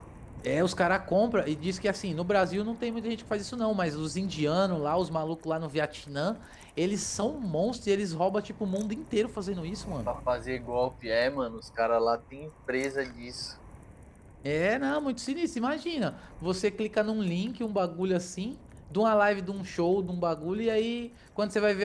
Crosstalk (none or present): none